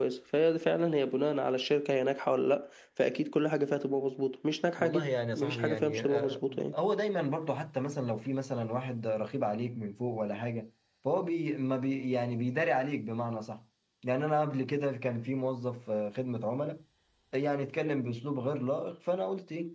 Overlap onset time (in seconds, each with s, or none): 4.8 s